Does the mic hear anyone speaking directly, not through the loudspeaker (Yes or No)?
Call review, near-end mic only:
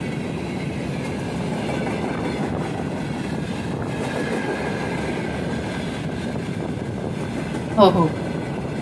Yes